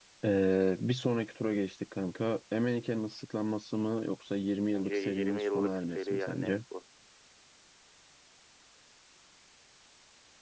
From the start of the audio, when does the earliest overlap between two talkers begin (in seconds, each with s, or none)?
4.7 s